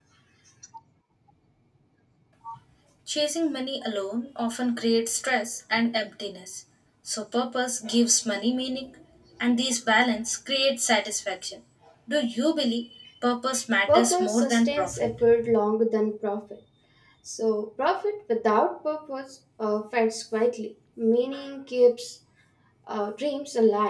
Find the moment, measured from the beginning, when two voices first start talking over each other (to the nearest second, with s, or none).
14 s